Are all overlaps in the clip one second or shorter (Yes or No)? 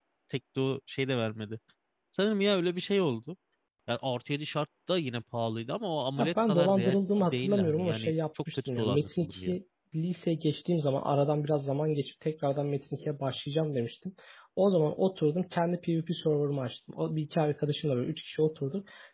No